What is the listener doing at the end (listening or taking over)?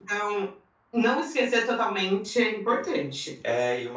taking over